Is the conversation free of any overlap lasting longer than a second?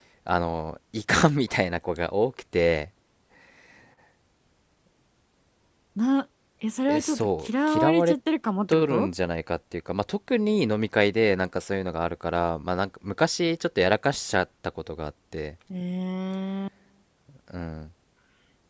No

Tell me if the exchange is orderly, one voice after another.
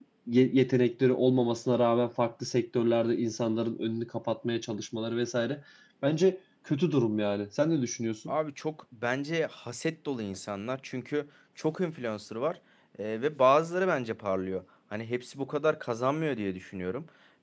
Yes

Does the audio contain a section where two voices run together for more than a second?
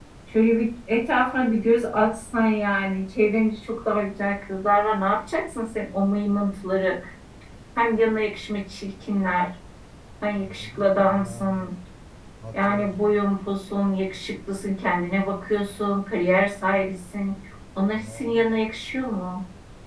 Yes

